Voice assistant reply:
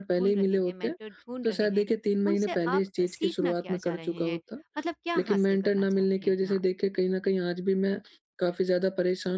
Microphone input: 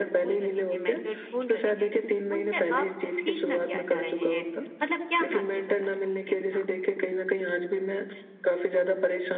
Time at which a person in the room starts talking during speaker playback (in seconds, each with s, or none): none